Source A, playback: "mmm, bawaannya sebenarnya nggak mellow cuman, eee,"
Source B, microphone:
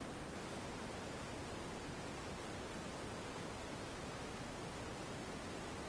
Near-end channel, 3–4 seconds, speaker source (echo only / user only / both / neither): neither